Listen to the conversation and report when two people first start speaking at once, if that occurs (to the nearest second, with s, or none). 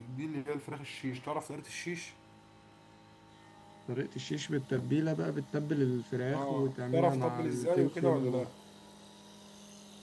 6 s